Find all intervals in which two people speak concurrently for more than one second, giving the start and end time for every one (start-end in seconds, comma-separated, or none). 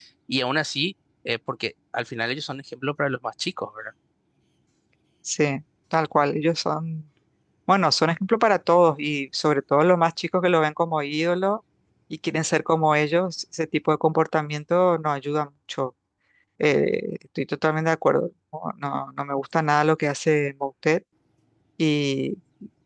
none